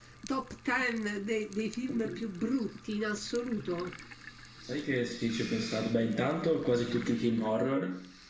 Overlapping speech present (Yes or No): No